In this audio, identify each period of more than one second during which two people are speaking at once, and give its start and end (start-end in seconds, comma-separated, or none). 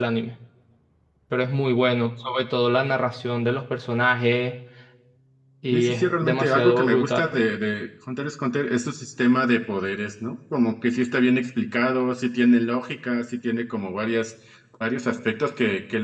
5.7-7.3